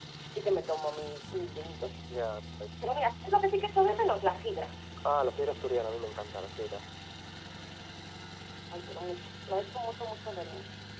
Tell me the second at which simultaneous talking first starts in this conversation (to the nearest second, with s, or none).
none